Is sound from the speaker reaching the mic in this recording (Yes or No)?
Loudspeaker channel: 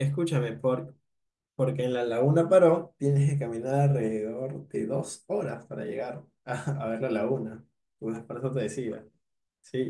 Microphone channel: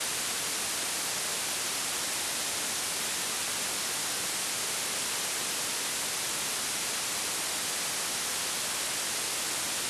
No